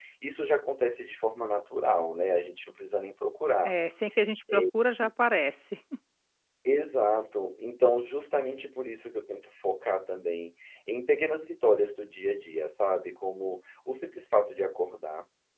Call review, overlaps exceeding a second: none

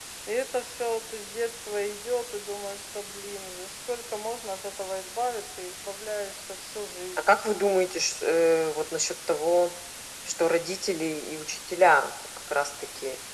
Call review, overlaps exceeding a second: none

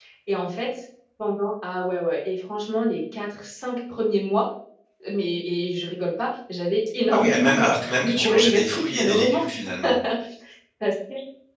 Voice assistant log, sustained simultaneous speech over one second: present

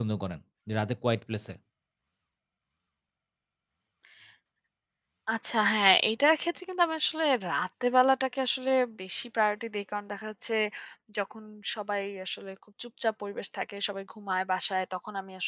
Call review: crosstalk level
none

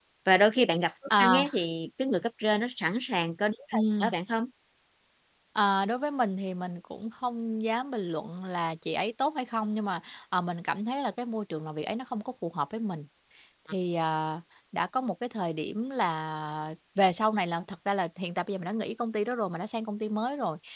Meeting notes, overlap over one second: none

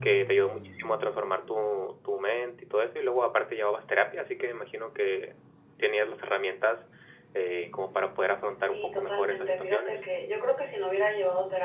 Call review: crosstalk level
present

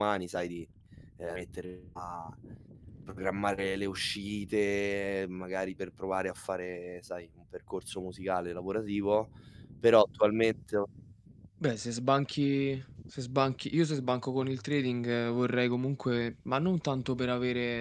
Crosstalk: none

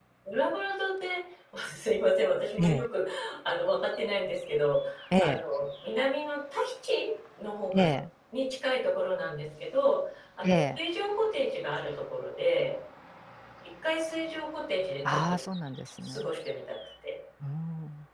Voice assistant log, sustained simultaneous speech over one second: none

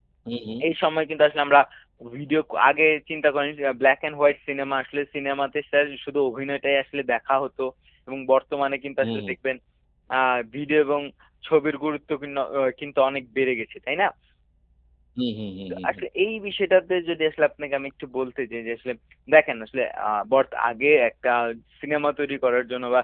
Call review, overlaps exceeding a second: none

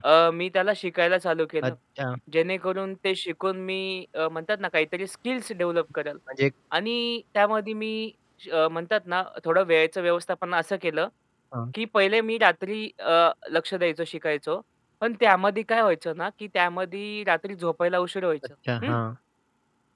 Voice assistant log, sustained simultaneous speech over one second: none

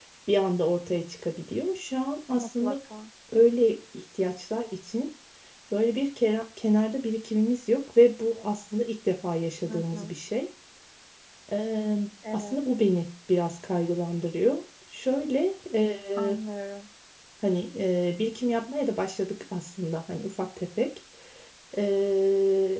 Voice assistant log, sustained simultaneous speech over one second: none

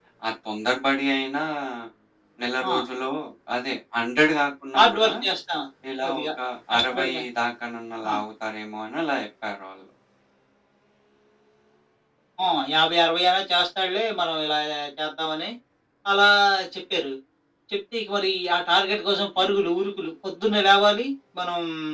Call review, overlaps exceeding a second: none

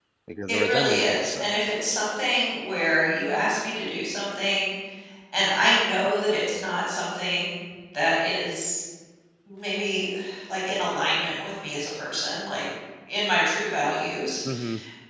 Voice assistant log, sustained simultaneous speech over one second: present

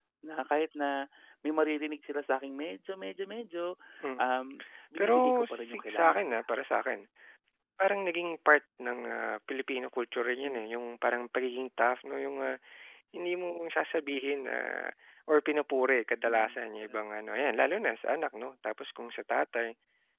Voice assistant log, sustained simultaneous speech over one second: present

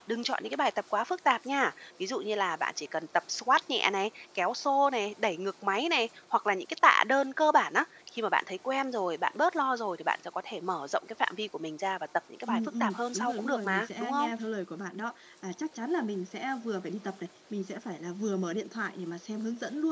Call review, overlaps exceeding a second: present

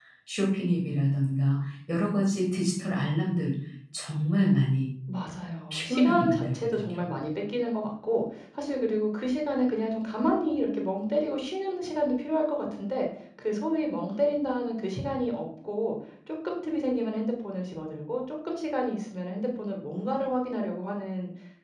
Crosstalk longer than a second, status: present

